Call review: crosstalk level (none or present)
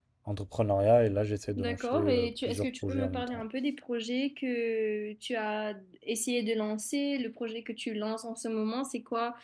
present